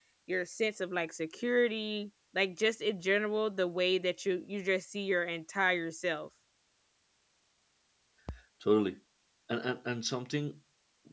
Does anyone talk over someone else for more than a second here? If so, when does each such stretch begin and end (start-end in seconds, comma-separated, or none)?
none